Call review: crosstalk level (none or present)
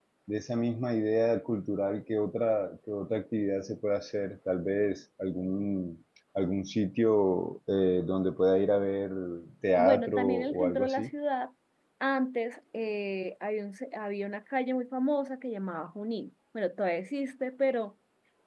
present